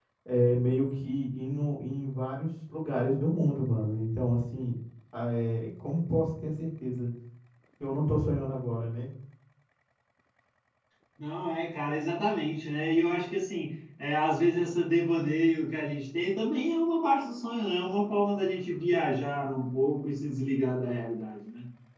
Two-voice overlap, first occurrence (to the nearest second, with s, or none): none